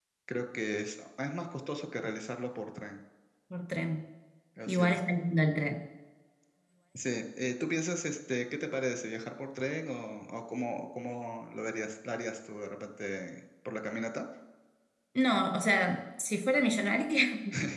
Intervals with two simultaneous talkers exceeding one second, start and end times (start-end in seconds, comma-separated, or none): none